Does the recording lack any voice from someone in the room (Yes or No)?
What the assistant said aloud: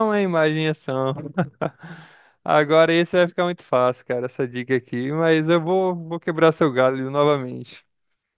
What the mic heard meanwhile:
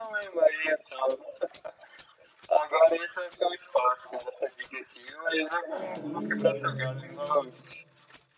No